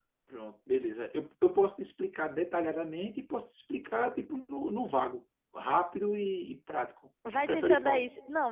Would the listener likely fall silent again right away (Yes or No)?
No